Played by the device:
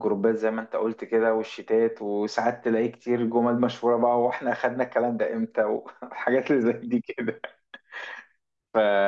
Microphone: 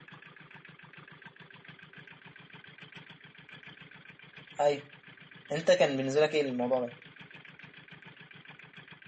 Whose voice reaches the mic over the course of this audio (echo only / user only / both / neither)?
user only